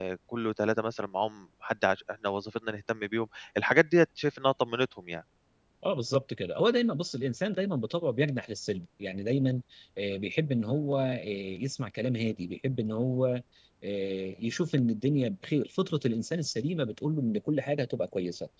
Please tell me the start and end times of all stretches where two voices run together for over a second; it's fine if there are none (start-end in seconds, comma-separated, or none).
none